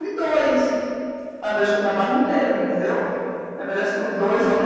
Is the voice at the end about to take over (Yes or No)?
No